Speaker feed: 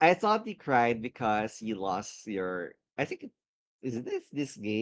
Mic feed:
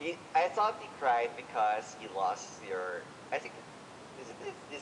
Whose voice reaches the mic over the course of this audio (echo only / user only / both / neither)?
echo only